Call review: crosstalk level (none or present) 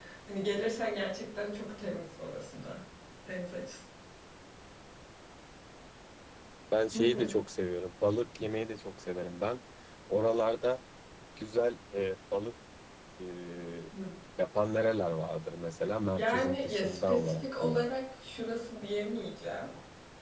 present